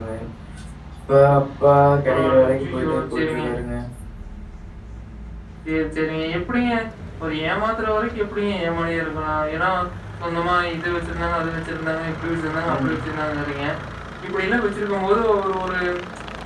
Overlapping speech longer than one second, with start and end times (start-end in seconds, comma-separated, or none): 2.1-3.4